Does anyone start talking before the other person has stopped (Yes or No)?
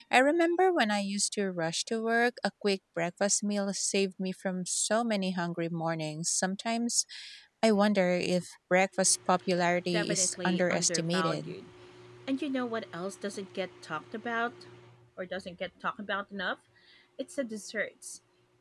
Yes